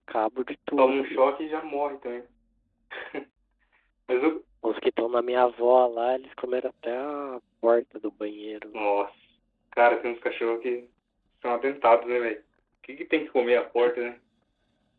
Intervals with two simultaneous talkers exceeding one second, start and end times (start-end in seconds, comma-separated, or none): none